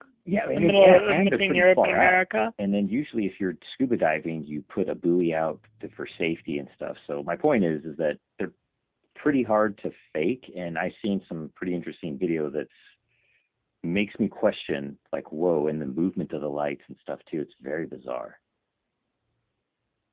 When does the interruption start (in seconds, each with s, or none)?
0.5 s